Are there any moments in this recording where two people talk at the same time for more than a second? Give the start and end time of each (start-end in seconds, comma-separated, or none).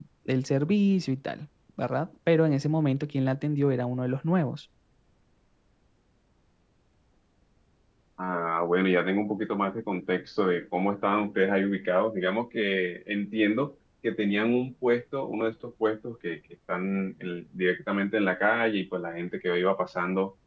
none